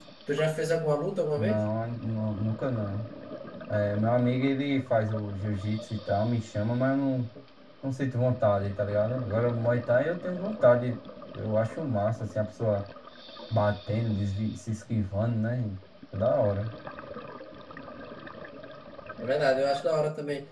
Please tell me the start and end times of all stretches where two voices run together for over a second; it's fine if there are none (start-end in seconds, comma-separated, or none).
none